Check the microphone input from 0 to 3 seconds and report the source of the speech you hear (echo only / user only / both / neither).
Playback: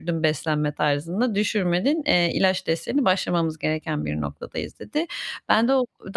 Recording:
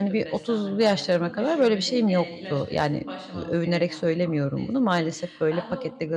both